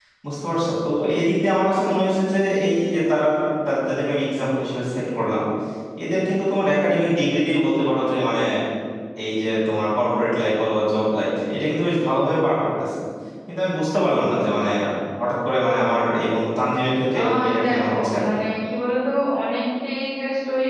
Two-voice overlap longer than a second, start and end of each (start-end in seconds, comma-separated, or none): 17.2-18.4